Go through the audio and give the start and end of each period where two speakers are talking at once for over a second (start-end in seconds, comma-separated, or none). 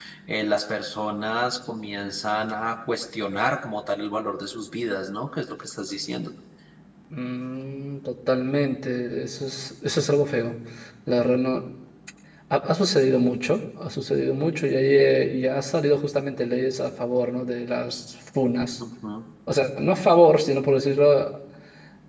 none